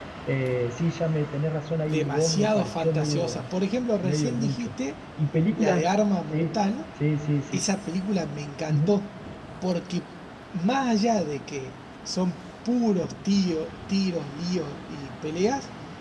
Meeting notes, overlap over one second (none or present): present